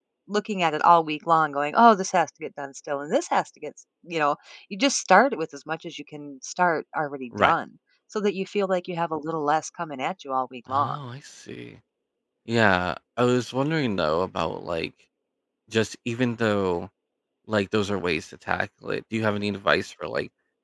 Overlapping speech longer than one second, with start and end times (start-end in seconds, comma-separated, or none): none